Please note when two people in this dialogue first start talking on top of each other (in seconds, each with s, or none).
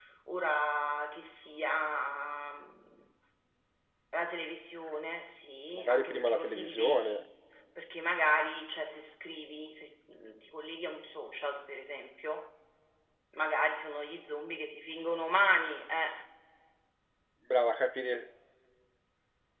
5.8 s